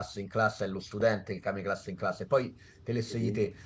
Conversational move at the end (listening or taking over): listening